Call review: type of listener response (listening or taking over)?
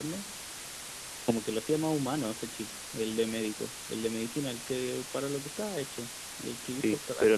taking over